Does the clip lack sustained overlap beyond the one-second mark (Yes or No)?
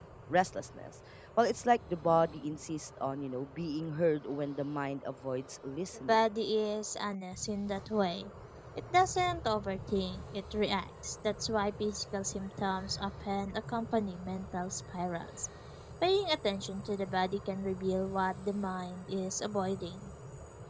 Yes